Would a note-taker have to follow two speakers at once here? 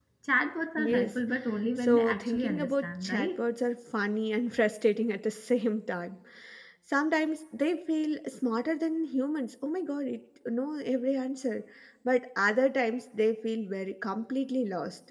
Yes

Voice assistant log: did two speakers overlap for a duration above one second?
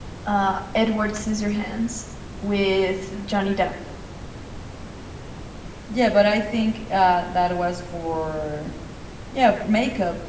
No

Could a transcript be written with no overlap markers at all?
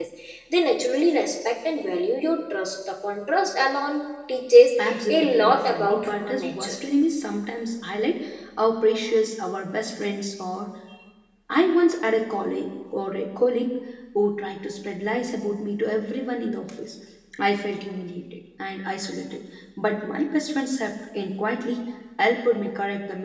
No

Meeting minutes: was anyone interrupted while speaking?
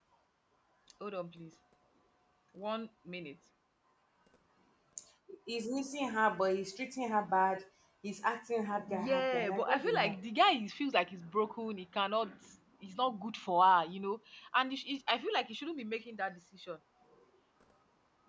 Yes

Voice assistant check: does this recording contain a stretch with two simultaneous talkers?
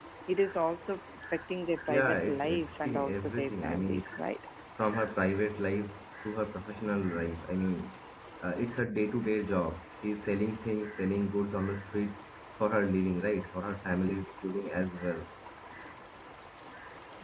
Yes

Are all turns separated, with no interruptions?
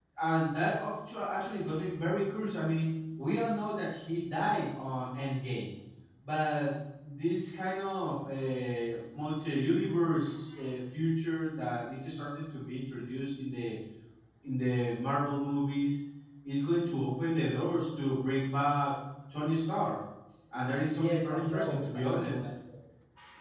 No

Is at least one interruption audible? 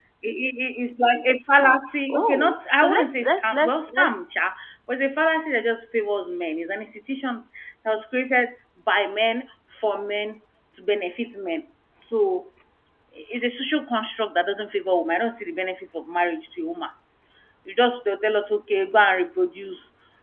Yes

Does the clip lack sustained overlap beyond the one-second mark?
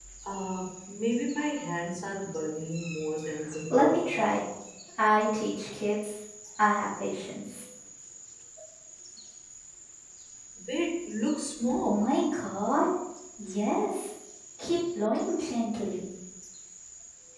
Yes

